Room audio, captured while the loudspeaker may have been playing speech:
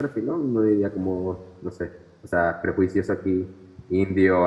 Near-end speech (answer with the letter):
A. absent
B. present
B